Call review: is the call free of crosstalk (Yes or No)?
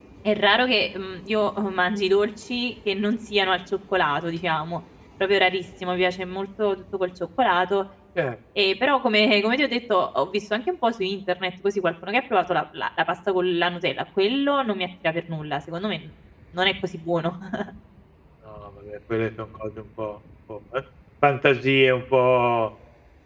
Yes